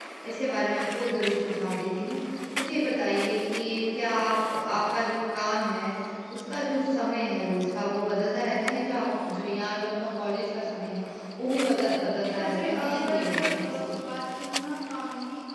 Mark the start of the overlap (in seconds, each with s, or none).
12.4 s